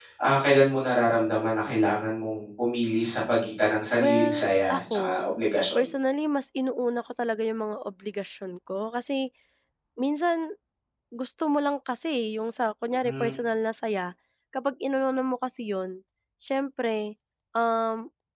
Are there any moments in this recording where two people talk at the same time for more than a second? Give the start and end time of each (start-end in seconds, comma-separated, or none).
4.0-5.3